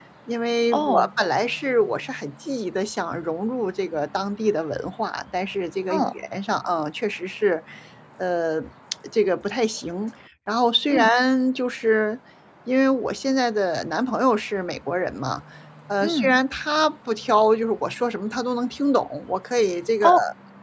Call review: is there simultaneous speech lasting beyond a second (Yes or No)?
No